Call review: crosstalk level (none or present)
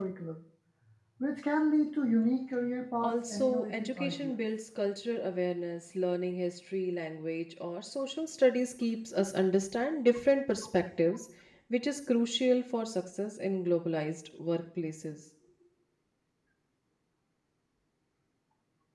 present